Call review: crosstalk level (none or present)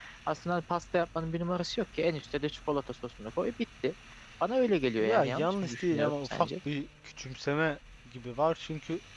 present